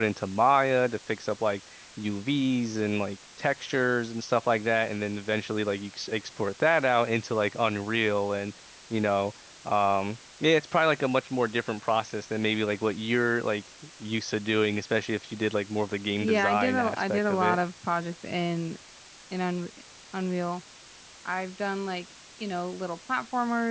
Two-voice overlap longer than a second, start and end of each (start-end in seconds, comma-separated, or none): 16.2-17.6